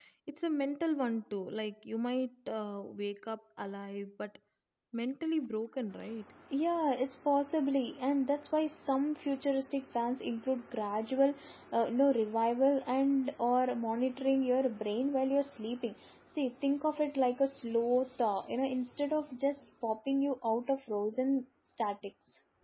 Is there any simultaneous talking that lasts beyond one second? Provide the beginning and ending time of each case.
none

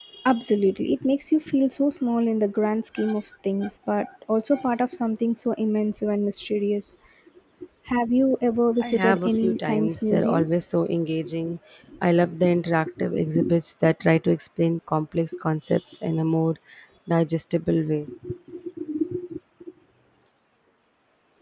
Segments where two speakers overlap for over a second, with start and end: 8.8-10.6

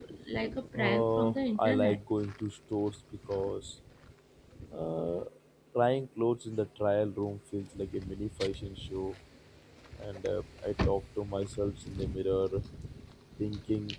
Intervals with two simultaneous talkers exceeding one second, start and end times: 0.7-2.0

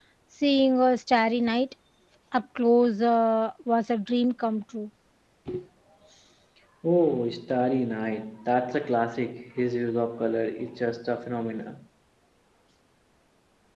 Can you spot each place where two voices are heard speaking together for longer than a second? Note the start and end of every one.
none

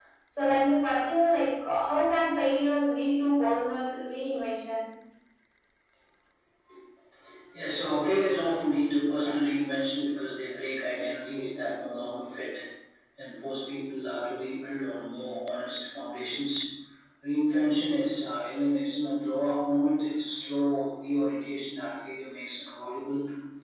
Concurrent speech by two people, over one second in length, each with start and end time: none

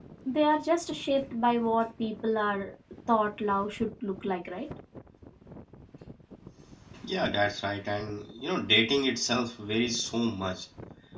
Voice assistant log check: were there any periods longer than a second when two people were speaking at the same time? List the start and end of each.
none

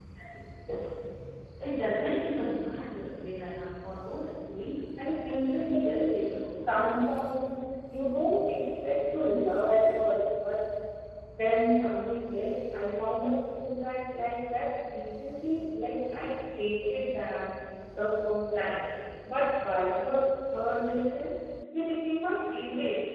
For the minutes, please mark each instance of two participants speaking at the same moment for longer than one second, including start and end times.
5.2-6.7

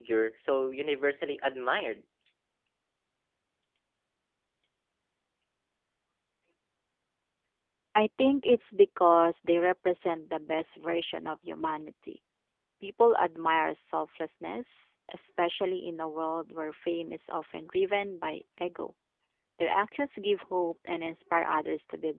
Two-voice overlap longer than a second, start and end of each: none

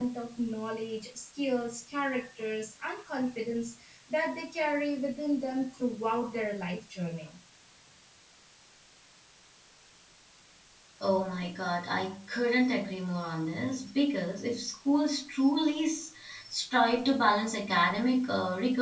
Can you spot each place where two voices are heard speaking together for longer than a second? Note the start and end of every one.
none

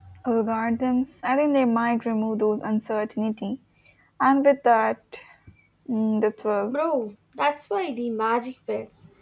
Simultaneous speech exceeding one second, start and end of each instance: none

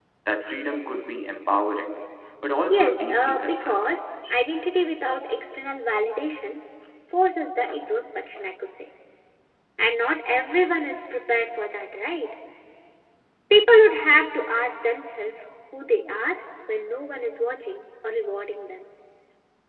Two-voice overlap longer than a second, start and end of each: 2.7-4.0

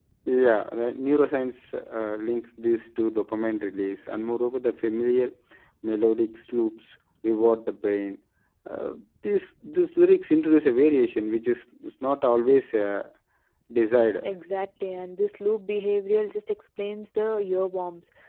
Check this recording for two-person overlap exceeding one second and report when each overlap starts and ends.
none

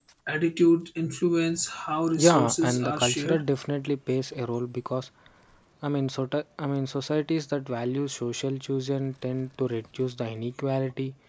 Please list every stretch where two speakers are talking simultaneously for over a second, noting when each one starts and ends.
2.2-3.4

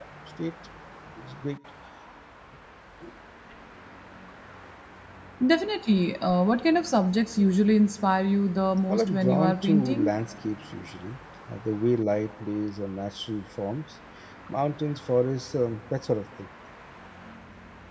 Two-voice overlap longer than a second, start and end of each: 8.9-10.1

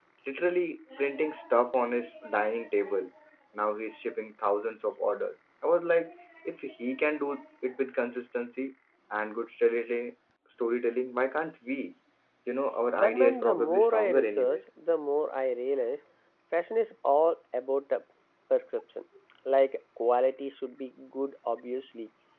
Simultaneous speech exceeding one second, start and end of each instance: 13.0-14.6

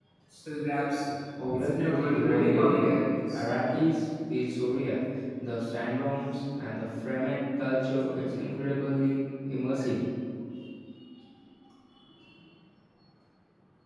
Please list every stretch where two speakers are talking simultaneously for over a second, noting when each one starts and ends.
1.5-2.9

